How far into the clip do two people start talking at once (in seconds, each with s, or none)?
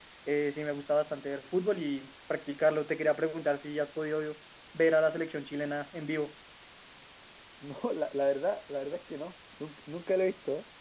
none